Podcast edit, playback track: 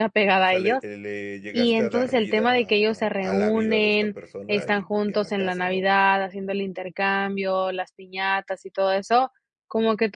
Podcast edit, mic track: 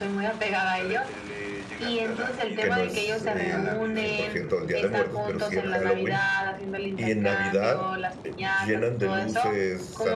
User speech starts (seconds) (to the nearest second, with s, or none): 3 s